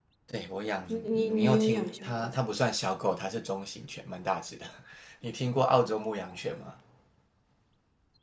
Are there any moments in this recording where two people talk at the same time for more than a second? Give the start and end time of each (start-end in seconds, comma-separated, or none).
0.9-2.4